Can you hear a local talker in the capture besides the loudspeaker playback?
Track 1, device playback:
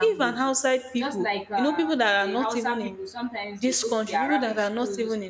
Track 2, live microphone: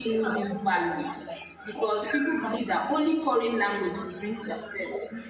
Yes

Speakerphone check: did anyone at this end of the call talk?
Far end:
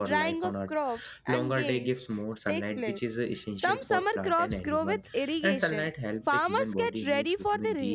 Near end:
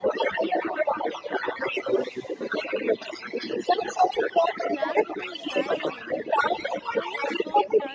Yes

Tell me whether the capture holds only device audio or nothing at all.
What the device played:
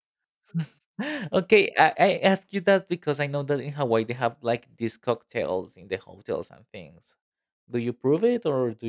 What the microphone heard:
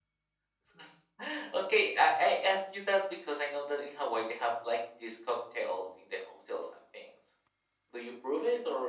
Yes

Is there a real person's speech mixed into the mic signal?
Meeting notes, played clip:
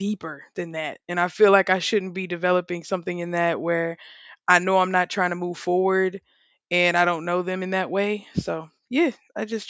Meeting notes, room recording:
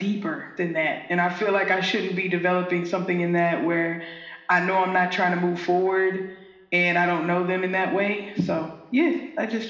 No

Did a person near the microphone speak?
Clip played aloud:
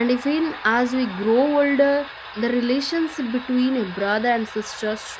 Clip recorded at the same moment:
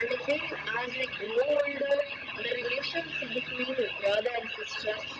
No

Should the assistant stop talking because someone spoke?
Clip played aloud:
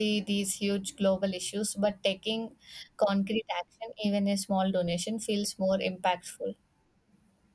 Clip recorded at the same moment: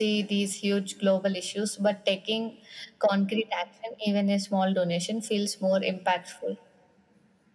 No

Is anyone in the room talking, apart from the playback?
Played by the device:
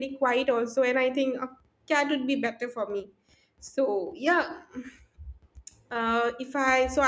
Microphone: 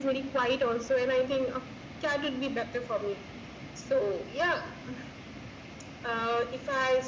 No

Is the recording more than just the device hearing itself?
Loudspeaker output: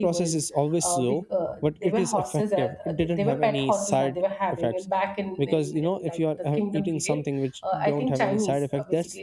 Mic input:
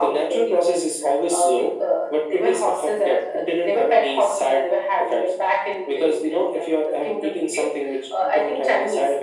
No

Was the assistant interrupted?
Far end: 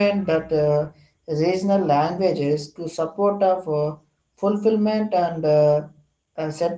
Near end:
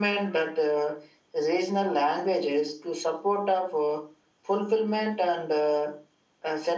No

